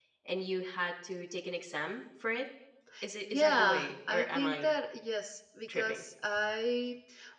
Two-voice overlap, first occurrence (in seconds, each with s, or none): 3.3 s